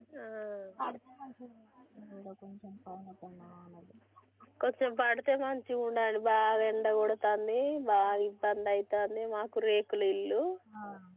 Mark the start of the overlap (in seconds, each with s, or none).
none